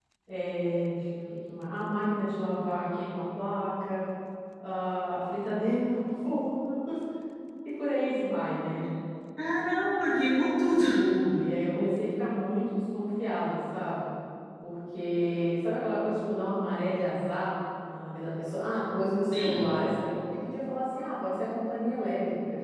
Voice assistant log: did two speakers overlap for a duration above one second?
No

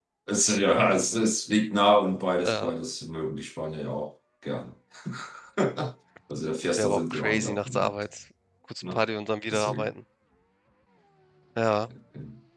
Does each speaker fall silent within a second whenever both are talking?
No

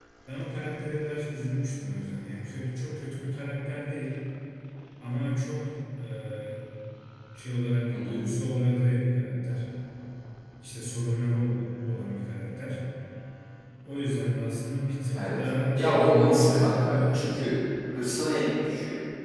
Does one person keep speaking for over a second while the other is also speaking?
Yes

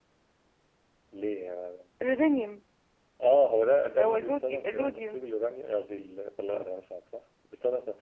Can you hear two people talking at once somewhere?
Yes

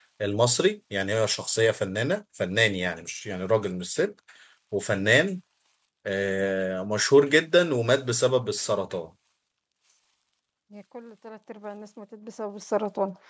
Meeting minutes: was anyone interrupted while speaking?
No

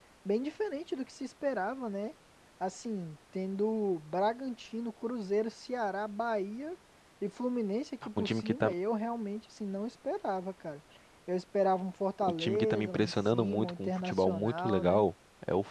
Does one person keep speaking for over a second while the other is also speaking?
Yes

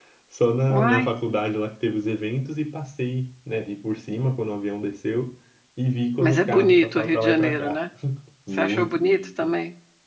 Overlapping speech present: Yes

